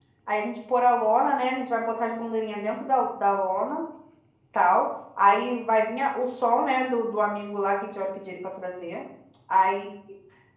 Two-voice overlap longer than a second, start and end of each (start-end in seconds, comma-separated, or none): none